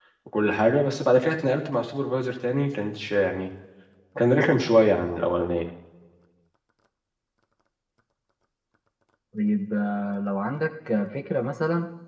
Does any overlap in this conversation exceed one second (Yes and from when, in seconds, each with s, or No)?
No